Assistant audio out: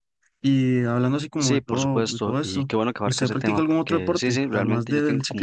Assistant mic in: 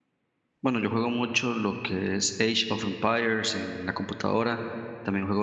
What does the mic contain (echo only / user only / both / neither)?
user only